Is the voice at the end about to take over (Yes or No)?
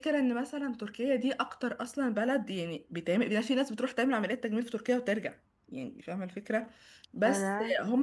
No